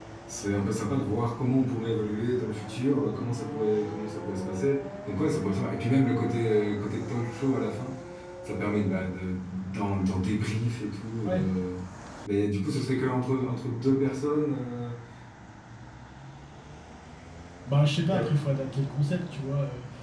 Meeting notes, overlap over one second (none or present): none